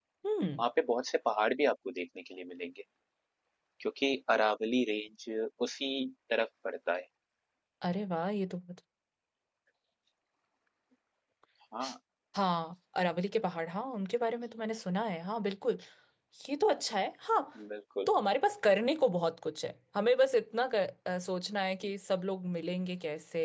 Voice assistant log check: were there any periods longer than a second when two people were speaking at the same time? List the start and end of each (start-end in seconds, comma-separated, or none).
none